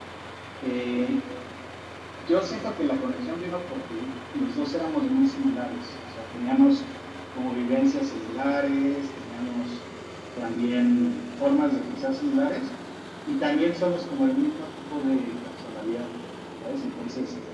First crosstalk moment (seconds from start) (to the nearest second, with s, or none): none